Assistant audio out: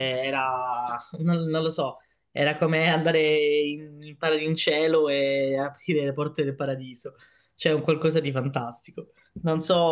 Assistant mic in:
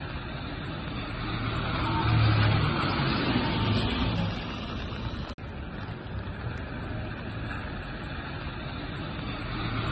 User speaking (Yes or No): No